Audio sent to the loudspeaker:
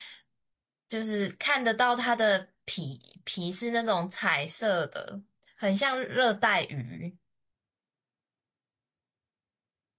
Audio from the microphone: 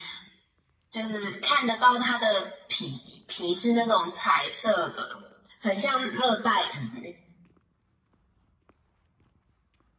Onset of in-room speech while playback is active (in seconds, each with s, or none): none